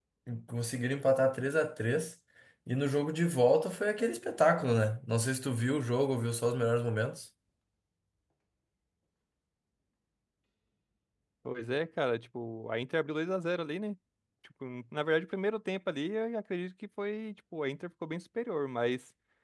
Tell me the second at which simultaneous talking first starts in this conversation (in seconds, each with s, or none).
none